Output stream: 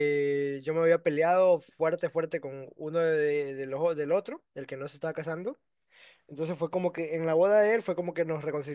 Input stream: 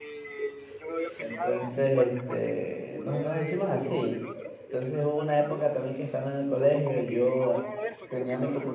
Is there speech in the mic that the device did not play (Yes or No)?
Yes